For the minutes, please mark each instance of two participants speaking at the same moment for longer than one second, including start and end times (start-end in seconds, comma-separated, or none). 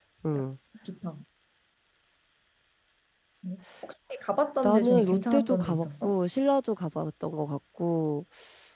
4.6-6.1